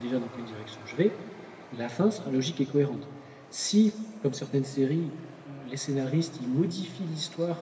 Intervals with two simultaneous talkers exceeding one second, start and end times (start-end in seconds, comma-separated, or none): none